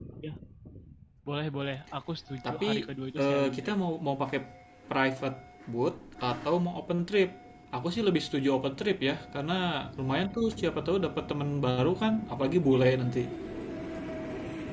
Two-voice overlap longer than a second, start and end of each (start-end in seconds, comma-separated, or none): none